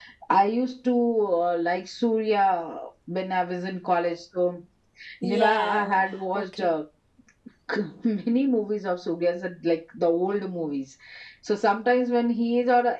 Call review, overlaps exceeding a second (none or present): present